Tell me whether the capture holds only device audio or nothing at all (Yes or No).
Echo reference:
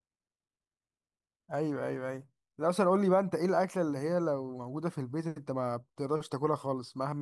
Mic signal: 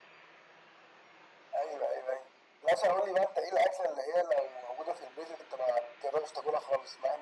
Yes